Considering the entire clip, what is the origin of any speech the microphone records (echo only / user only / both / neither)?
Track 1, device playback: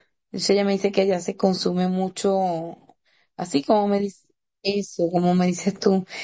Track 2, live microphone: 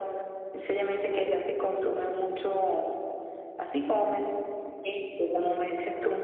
echo only